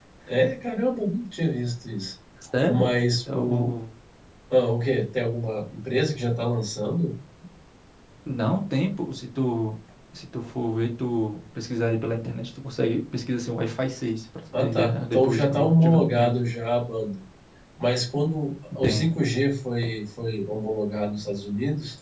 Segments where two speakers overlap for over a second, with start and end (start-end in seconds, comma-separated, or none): 14.6-16.4